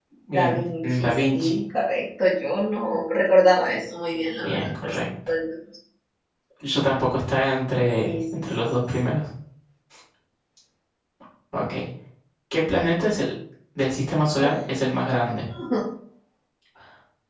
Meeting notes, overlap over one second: present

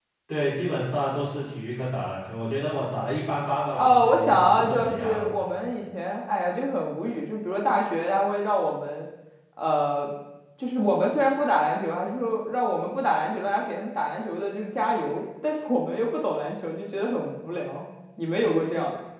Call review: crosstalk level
present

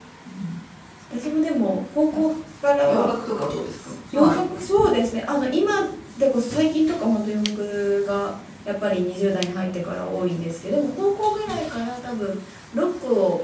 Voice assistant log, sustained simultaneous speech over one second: none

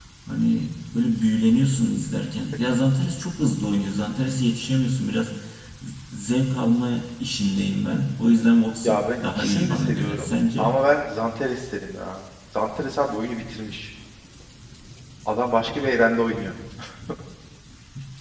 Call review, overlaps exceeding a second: present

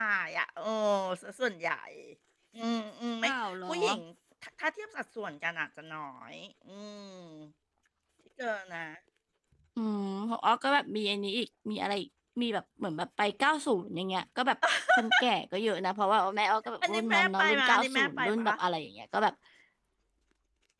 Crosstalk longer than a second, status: present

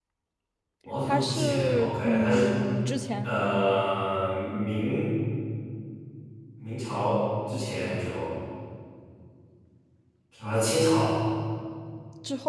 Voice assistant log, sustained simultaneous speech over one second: present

